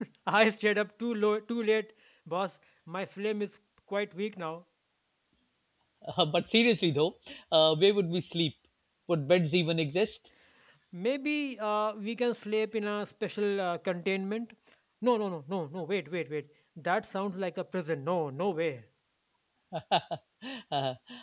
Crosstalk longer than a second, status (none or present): none